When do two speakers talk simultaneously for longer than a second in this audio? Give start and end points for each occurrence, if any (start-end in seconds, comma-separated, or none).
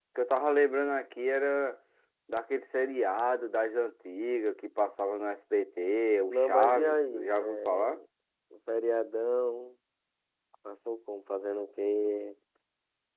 6.3-7.9